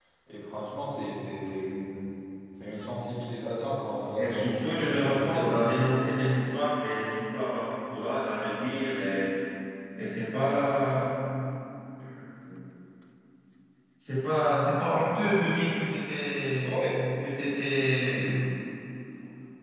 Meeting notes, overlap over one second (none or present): present